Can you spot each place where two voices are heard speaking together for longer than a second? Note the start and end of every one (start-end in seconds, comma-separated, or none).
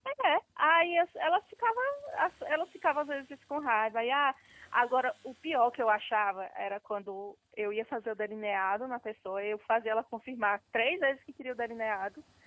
none